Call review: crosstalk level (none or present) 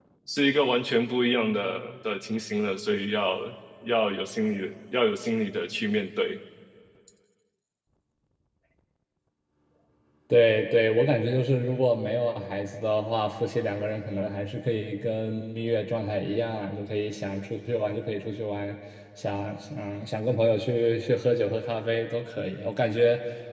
none